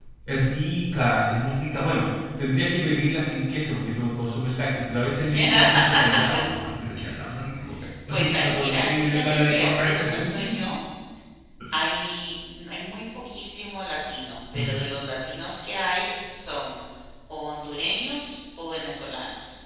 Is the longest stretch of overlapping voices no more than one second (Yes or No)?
No